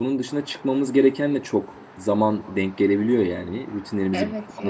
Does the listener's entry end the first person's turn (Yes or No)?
No